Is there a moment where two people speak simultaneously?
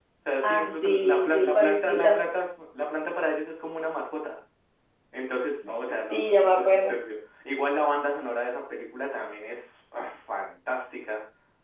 Yes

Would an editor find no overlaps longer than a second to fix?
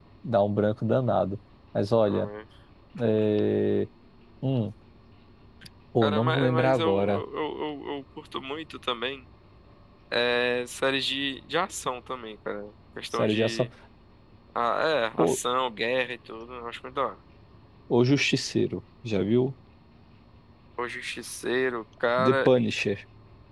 No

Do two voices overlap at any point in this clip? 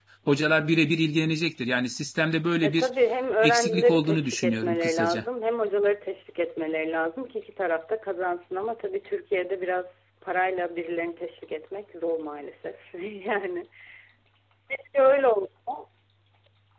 Yes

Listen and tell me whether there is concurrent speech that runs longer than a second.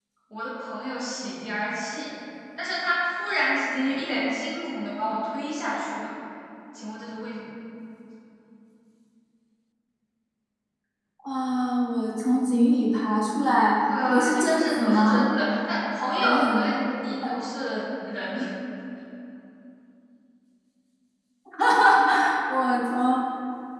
Yes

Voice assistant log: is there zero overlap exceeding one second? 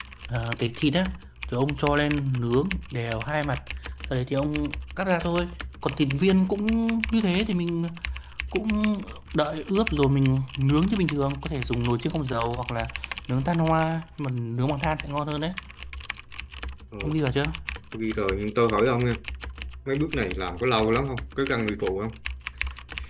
Yes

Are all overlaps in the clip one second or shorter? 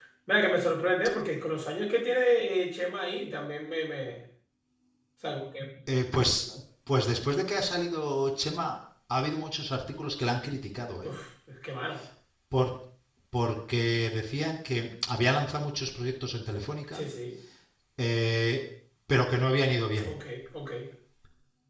Yes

